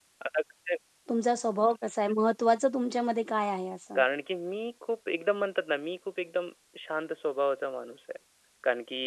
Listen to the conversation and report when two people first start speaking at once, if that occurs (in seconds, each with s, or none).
none